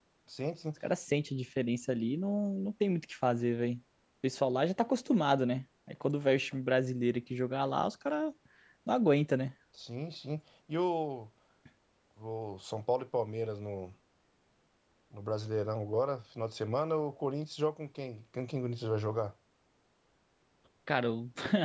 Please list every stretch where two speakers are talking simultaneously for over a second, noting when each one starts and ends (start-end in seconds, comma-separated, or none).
none